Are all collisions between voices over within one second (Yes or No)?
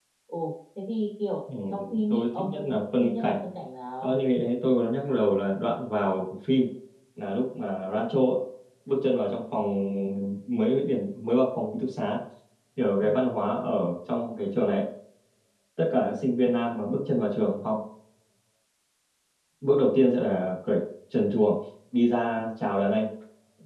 No